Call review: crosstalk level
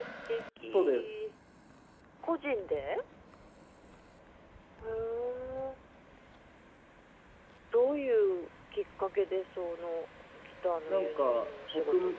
present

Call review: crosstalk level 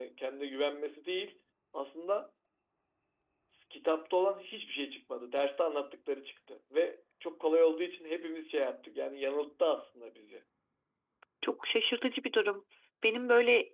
none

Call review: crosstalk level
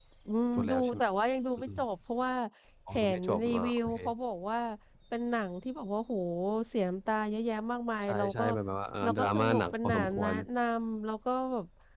present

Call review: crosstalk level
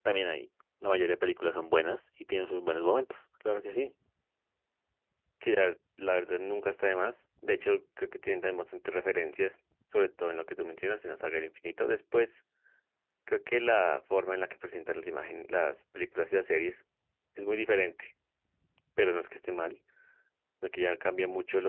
none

